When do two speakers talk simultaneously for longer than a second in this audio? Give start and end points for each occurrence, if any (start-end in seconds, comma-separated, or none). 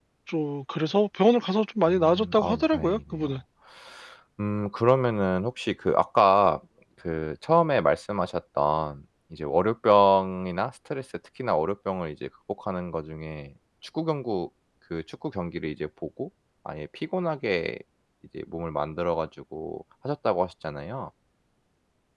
1.9-3.3